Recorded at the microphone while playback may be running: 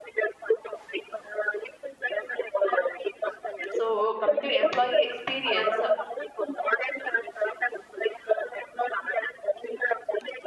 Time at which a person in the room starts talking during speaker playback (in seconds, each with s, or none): 3.7 s